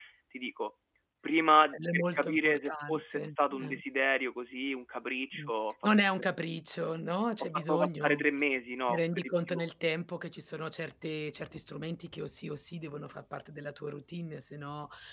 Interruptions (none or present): present